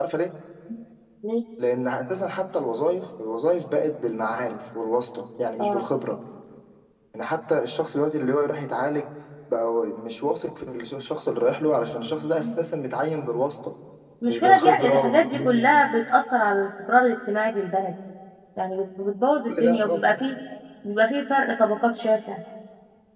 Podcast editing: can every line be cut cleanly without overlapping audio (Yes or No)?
No